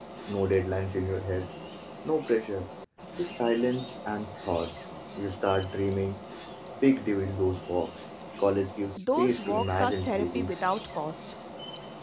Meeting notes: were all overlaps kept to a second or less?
No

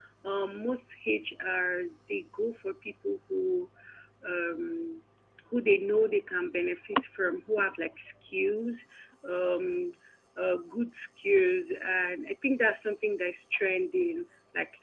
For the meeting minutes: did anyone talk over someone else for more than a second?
No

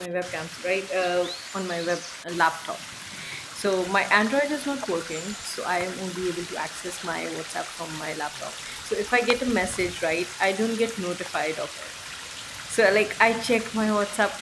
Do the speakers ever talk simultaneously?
No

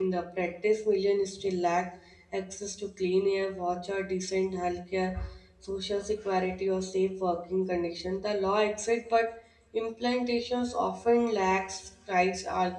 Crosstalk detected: No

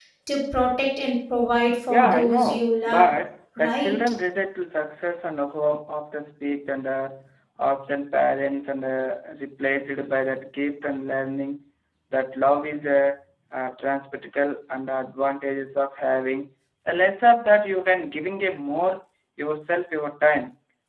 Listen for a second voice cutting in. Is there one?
Yes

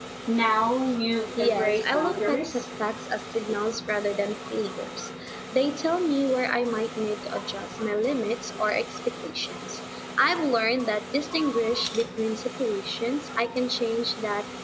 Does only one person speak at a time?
No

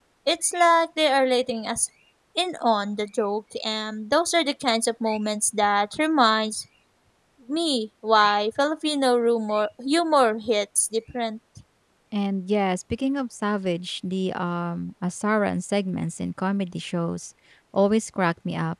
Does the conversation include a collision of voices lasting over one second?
No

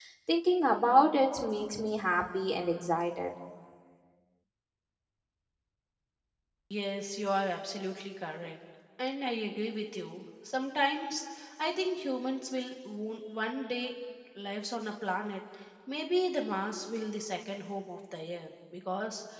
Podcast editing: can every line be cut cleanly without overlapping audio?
Yes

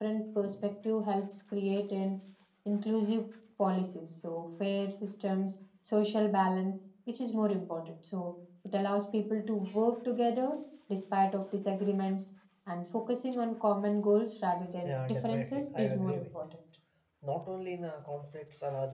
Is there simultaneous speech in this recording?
Yes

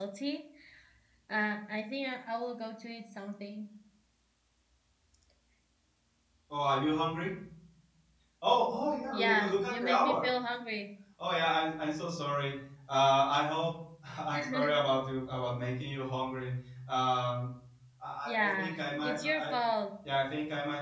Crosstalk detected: Yes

